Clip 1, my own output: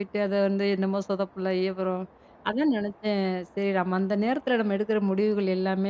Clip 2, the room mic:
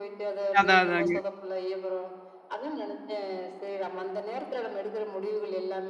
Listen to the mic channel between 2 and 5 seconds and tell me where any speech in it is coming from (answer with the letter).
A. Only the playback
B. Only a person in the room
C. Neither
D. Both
A